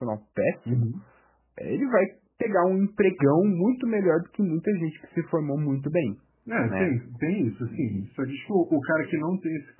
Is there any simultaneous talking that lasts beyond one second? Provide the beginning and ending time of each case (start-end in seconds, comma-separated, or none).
none